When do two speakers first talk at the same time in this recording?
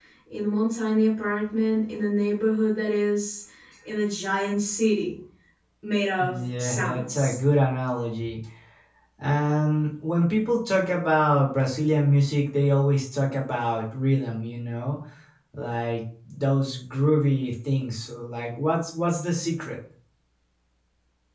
6.1 s

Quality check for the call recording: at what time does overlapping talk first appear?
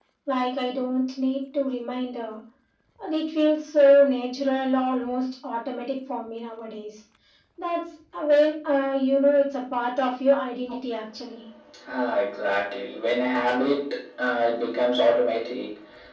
none

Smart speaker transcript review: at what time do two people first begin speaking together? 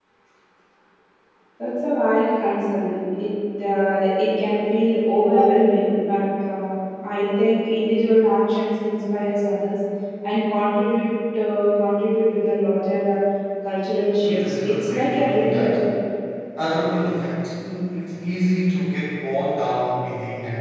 14.2 s

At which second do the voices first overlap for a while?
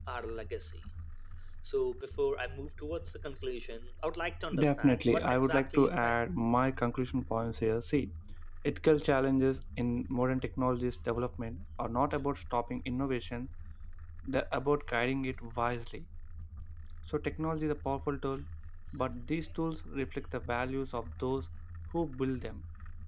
4.5 s

